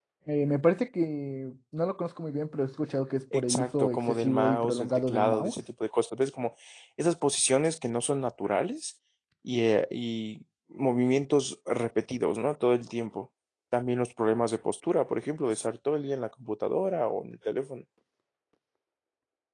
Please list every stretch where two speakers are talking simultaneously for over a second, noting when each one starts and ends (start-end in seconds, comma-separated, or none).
3.3-5.5